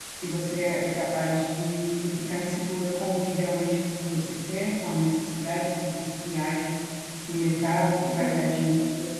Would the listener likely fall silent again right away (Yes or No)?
Yes